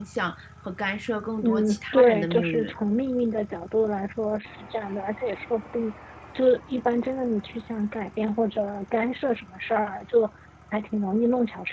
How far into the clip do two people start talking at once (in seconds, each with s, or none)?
1.4 s